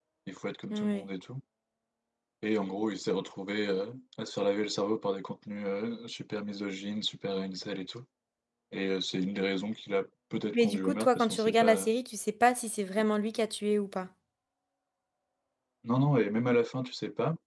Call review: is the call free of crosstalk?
No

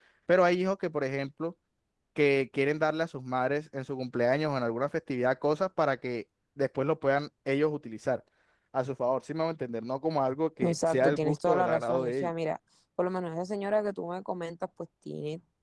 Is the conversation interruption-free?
No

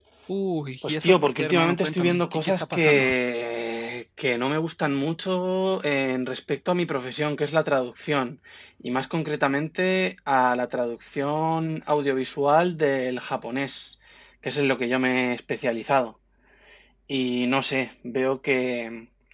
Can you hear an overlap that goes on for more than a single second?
Yes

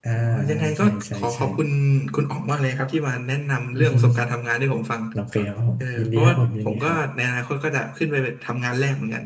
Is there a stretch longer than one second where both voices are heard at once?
Yes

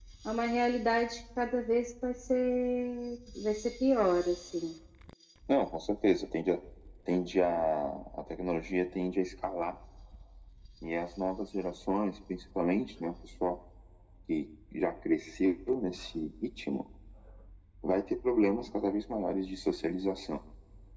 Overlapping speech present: No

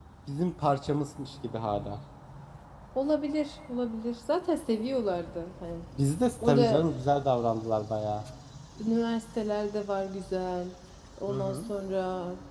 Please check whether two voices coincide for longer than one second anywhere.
No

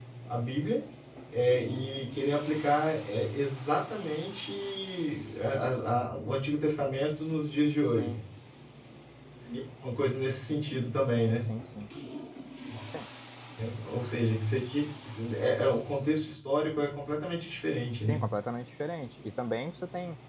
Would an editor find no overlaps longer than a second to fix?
Yes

